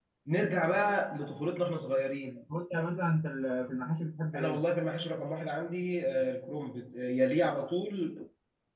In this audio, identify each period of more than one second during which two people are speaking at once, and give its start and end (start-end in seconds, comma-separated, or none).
none